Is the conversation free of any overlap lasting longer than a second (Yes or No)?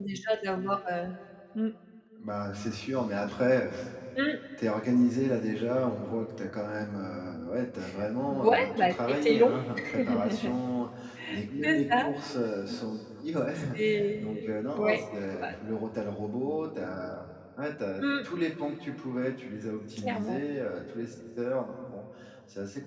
No